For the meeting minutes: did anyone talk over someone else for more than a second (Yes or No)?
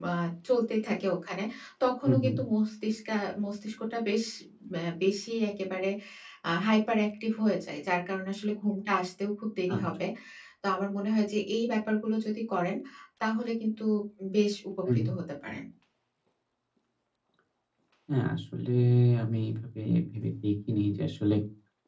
No